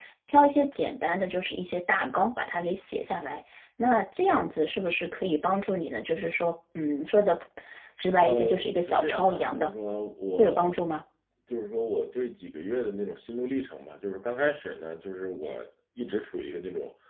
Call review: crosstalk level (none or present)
present